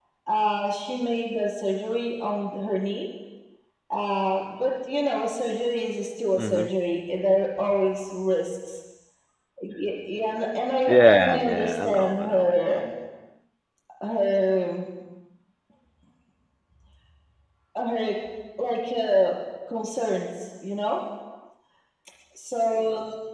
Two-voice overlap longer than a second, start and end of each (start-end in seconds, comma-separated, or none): 10.9-12.5